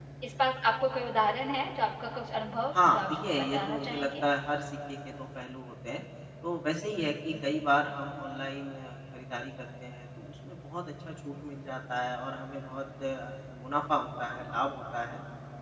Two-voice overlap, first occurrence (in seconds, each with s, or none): 2.7 s